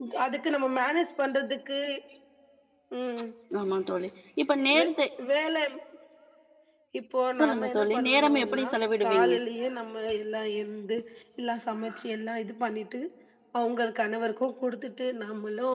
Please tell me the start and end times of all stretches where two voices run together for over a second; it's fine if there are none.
7.4-8.6

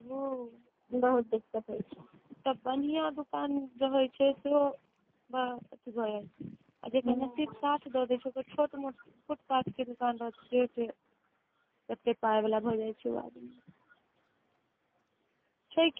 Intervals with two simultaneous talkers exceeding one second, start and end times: none

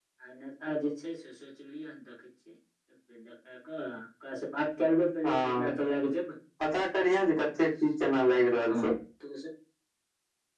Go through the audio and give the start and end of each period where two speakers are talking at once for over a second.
none

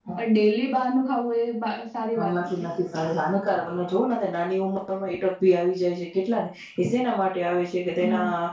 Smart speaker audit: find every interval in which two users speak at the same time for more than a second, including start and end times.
none

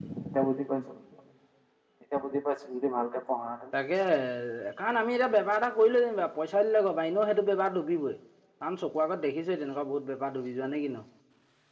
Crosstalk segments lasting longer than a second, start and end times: none

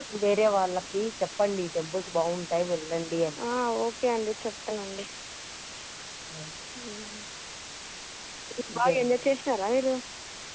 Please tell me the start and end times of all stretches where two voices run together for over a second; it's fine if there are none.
none

